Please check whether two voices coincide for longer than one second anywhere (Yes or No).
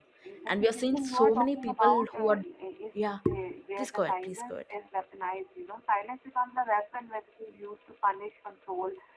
Yes